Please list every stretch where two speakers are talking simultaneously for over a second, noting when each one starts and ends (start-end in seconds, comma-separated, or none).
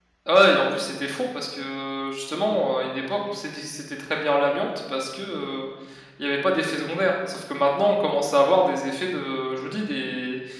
none